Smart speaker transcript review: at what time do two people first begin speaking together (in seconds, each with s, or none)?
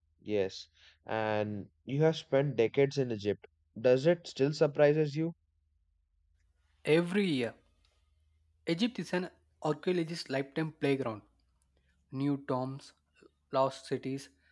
none